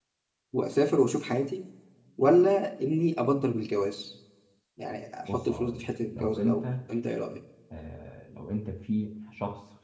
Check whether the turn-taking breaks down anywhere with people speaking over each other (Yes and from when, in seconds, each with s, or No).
Yes, from 5.2 s